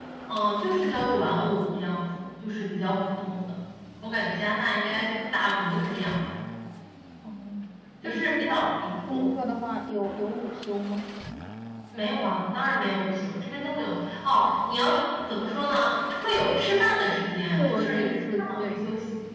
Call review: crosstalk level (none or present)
present